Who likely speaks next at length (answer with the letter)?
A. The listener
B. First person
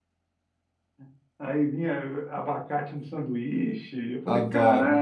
A